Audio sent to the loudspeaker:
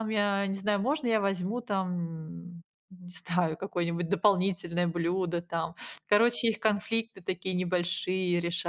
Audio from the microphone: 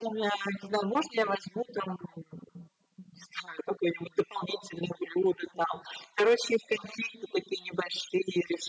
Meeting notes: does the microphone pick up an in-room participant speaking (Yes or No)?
No